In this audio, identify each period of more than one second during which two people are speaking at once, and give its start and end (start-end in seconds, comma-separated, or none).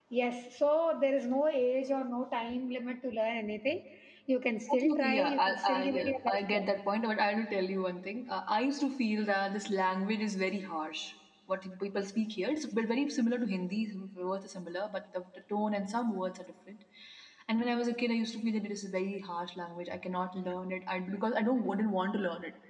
4.7-6.7